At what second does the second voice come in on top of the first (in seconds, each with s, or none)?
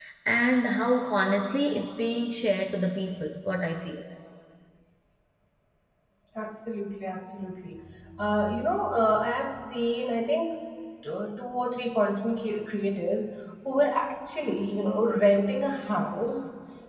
none